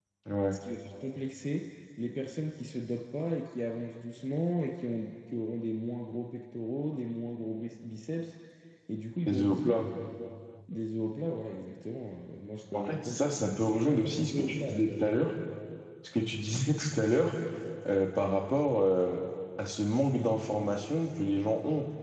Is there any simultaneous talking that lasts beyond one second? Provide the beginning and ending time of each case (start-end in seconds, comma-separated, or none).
12.7-15.4